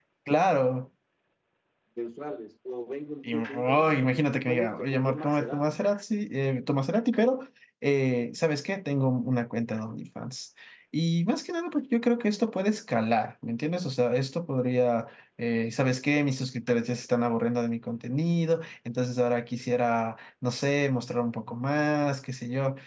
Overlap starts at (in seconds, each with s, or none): 3.2 s